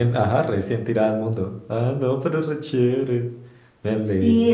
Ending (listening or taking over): taking over